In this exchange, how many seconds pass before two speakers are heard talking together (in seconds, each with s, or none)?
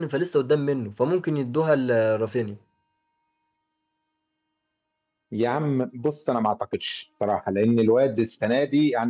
none